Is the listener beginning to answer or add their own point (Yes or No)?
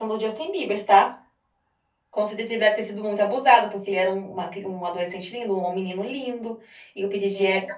No